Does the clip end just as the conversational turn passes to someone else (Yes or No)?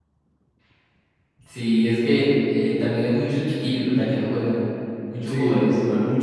Yes